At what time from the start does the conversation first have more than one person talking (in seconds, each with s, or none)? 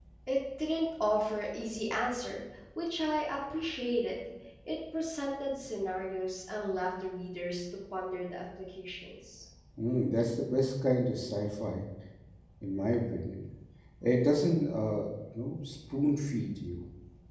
none